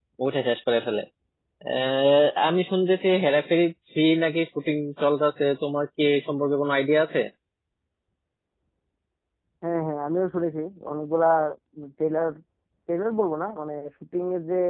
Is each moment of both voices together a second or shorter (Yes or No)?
Yes